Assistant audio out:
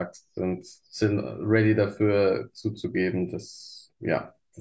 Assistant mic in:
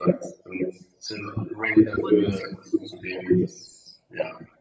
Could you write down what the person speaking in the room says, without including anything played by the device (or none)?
Und